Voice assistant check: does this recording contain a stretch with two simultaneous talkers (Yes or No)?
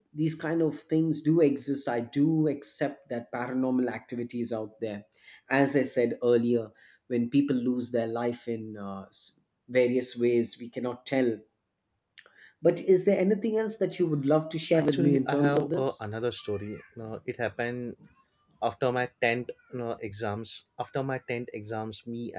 Yes